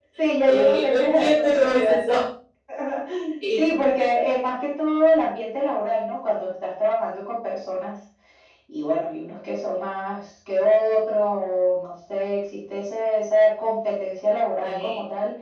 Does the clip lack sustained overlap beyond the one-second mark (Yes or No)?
No